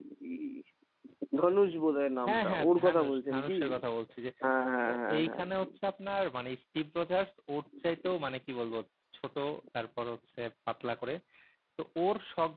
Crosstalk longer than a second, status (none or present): present